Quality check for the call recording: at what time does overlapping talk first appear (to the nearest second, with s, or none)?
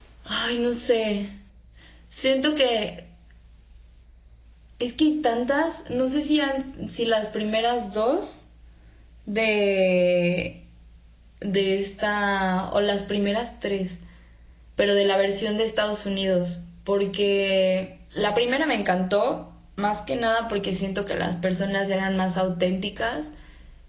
none